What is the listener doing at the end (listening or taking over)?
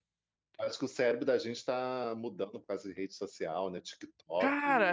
taking over